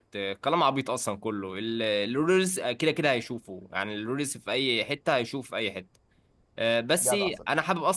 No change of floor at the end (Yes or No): Yes